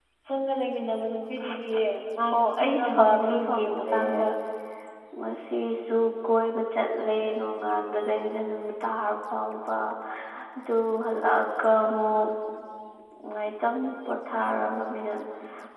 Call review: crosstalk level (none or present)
present